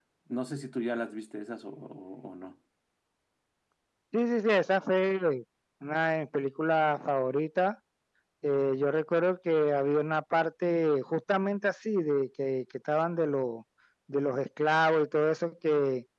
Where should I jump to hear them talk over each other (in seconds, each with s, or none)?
none